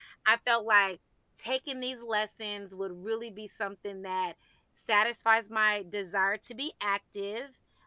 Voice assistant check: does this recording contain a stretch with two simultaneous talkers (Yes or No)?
No